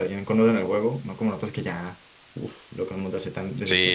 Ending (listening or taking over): taking over